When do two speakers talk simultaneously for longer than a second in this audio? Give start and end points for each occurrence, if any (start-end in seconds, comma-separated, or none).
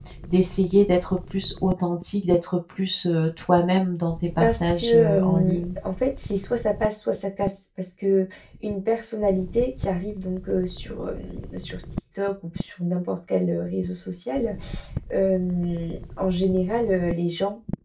4.4-5.7